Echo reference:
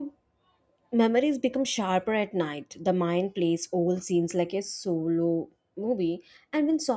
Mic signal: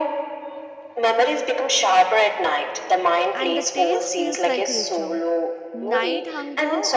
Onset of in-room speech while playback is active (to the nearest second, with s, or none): 3 s